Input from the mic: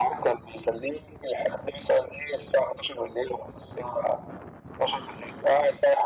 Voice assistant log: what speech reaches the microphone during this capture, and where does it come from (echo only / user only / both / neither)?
echo only